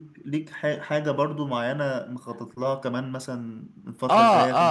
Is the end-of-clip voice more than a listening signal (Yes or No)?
Yes